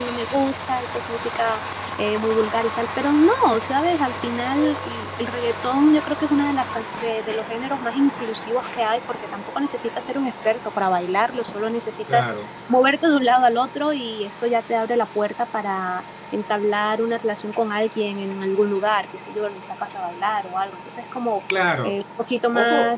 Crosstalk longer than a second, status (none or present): none